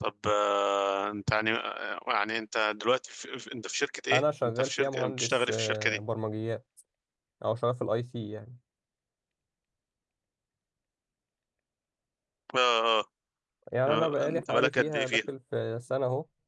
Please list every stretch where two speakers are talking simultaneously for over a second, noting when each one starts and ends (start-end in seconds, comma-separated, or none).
4.1-6.0, 13.9-15.2